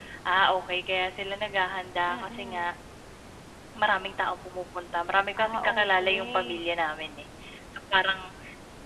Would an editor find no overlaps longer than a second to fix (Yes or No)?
No